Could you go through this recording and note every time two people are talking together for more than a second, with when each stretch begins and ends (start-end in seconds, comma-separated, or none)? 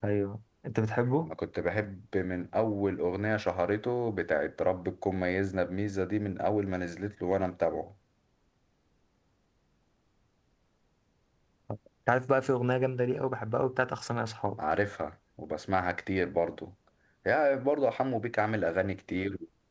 none